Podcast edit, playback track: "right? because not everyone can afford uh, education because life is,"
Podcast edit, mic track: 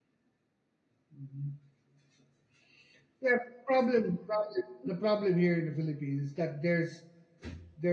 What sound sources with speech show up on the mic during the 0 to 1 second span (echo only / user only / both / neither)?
neither